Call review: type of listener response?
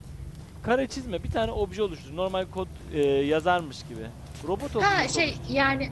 taking over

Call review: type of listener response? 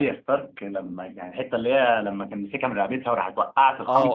taking over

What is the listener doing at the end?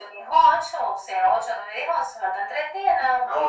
taking over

